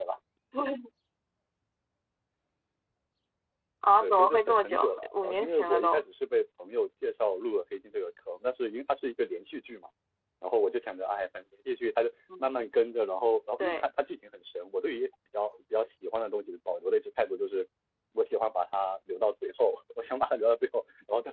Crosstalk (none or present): present